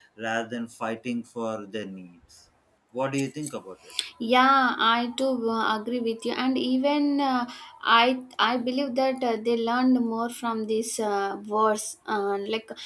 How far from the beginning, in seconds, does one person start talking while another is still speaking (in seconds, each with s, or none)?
none